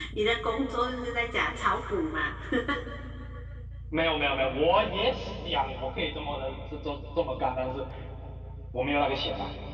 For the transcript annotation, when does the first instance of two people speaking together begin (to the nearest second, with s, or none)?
none